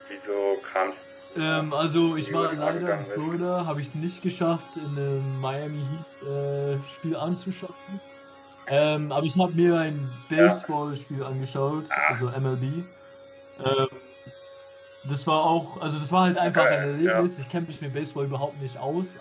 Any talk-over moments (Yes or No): Yes